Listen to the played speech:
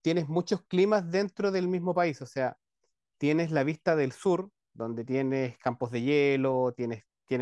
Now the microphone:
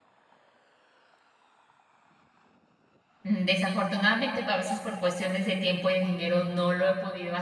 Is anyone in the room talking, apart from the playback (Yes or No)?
Yes